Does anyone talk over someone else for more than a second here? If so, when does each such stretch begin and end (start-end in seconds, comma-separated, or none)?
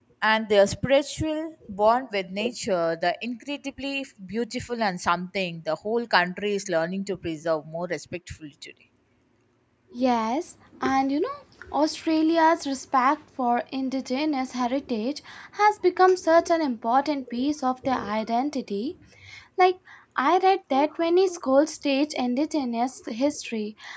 none